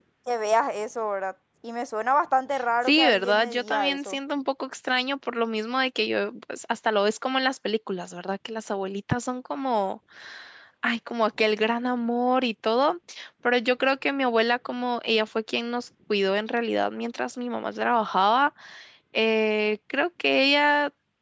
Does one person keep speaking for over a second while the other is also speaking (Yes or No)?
Yes